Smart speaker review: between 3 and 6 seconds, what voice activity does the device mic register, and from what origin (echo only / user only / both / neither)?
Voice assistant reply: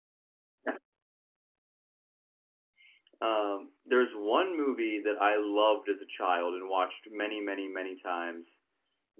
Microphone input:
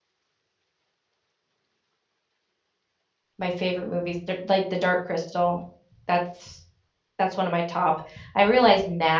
user only